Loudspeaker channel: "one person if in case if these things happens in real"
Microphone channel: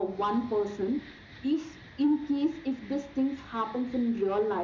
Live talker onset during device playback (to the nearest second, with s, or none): none